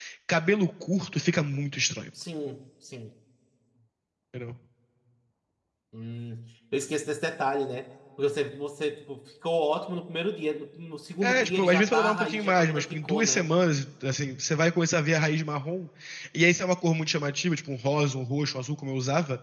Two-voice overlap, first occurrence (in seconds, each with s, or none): 11.2 s